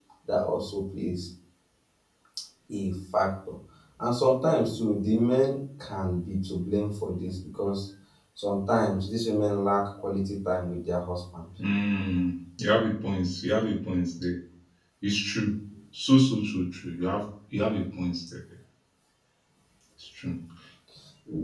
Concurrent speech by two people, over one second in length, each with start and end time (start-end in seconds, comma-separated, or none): none